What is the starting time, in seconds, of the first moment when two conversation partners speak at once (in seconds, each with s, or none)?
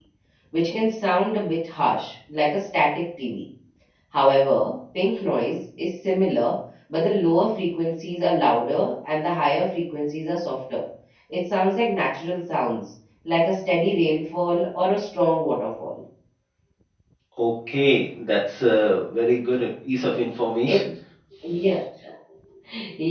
none